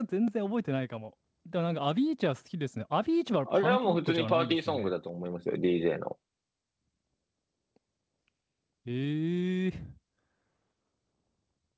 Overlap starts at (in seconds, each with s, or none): 3.5 s